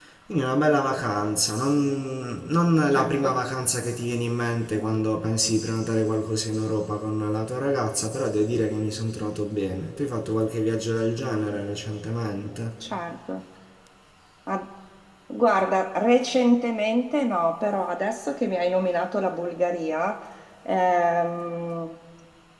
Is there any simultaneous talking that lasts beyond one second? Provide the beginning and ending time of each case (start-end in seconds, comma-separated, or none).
none